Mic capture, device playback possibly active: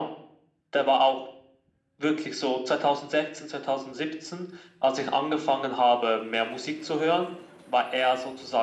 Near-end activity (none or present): none